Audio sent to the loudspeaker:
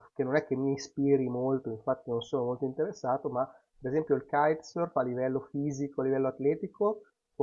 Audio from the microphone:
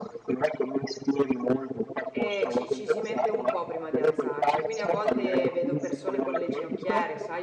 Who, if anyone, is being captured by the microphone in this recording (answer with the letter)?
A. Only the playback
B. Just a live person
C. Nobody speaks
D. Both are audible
D